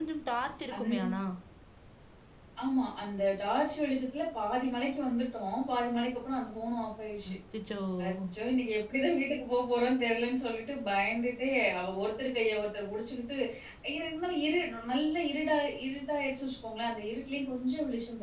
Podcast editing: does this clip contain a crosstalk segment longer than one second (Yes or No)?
No